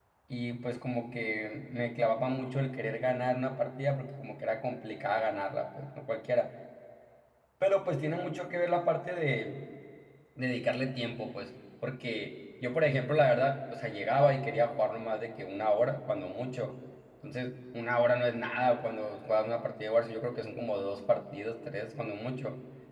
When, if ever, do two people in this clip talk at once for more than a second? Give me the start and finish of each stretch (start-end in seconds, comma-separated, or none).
none